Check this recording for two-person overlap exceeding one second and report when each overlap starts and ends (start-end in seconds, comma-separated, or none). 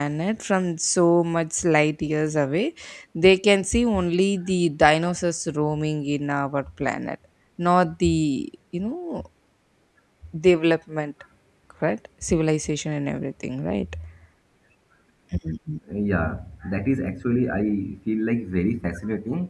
none